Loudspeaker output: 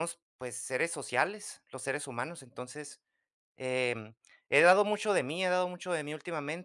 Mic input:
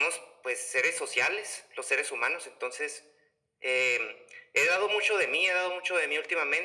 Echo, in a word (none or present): present